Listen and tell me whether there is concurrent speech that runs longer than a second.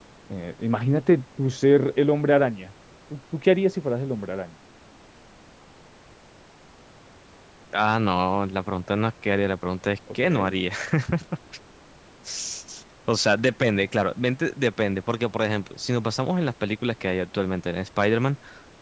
No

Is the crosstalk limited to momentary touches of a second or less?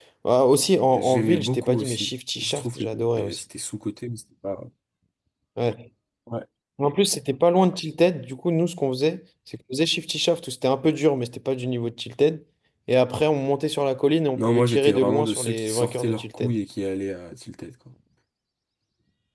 No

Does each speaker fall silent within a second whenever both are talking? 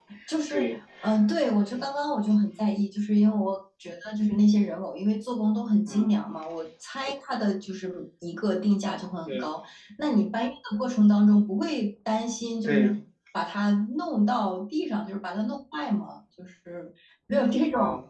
Yes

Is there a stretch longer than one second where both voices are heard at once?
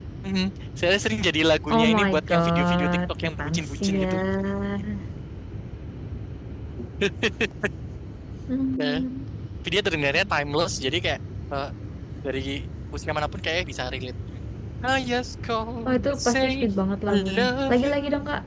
Yes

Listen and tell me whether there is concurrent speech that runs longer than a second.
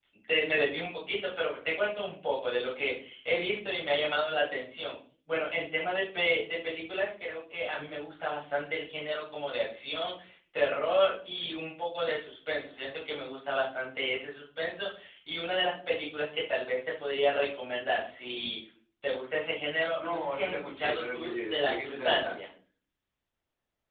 Yes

